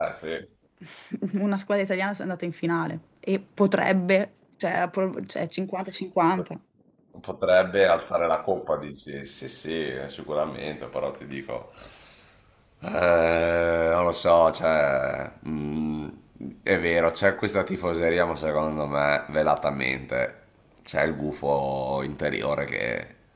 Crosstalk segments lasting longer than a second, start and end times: none

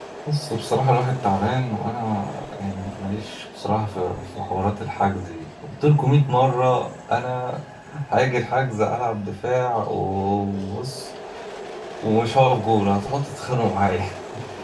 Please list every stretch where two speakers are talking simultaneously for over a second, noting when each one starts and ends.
none

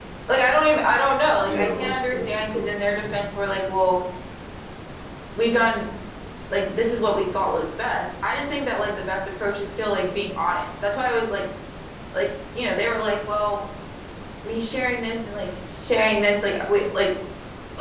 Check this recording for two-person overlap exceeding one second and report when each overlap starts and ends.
1.4-3.0

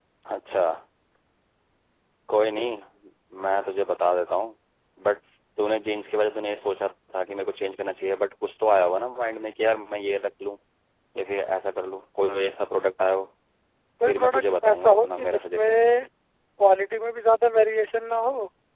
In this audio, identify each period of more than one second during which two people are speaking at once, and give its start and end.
14.1-15.8

